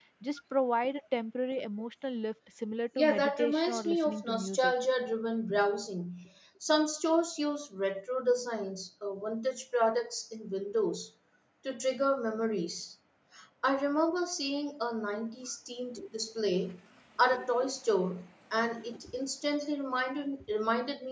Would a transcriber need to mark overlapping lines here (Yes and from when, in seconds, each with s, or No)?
Yes, from 3.0 s